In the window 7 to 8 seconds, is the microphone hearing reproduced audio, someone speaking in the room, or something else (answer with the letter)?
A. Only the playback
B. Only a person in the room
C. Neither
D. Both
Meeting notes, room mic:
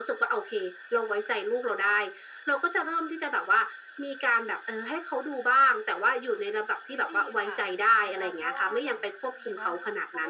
D